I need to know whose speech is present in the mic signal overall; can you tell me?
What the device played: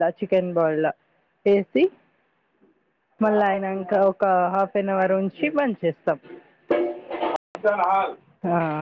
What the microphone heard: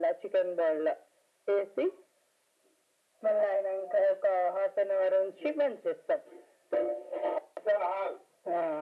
echo only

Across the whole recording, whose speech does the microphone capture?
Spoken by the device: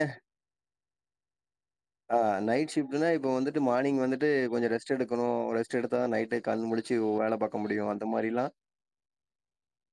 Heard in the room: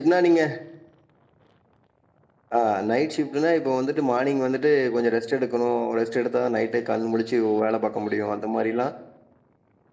echo only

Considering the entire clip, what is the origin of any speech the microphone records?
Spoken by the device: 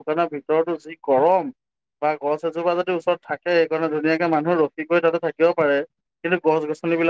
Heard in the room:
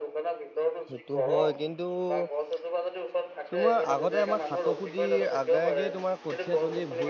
both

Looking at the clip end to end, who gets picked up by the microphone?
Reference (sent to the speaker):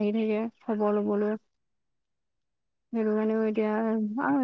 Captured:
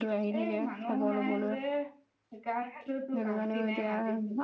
both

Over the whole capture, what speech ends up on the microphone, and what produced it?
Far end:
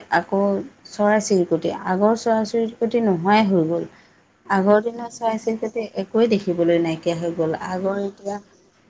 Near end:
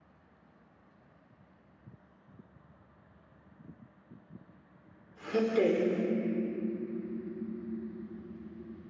user only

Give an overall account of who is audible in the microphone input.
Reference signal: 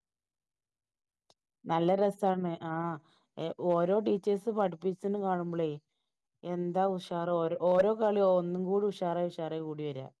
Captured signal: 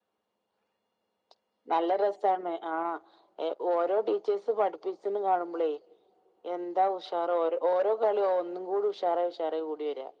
echo only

